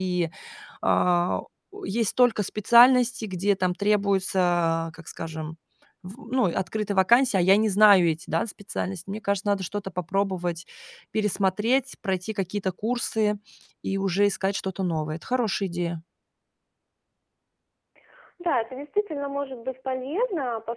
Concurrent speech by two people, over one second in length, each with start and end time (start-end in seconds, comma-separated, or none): none